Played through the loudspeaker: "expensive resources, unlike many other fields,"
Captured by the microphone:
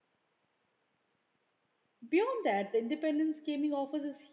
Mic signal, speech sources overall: user only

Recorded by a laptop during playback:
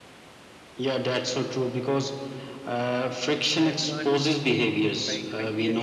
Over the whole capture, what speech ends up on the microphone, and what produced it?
both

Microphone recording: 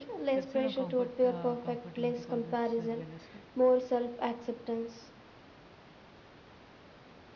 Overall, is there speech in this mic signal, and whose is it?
both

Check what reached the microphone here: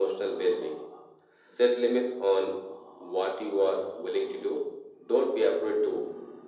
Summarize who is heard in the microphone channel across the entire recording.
echo only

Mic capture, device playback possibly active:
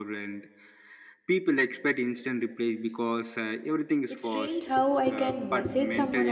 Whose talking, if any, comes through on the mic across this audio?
both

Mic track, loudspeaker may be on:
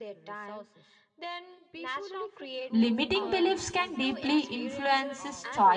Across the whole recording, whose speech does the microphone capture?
both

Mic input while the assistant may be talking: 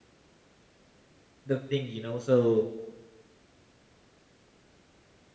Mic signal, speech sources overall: user only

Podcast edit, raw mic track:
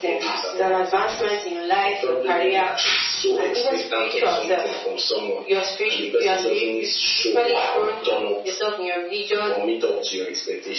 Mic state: echo only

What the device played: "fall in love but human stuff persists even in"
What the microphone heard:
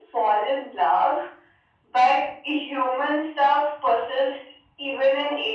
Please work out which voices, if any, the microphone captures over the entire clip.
echo only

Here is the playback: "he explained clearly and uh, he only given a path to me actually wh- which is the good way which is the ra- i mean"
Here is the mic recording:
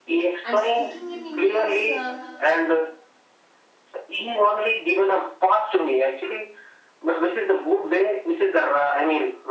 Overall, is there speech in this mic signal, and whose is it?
both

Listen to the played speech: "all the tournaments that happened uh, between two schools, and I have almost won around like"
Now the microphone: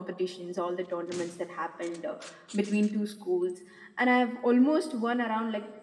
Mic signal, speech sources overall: echo only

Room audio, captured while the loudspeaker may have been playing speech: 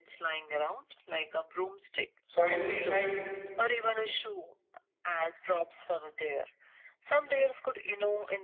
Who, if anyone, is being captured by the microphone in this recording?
both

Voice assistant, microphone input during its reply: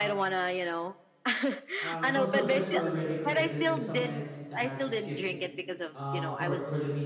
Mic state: both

